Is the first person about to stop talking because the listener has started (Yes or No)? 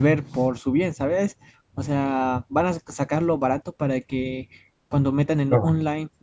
No